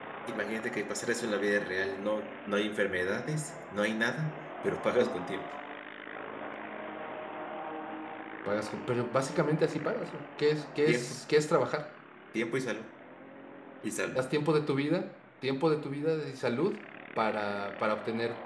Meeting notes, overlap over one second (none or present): none